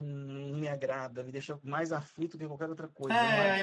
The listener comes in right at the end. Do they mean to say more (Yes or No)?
Yes